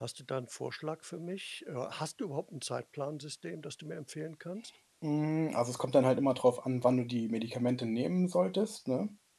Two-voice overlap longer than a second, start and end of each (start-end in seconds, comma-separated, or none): none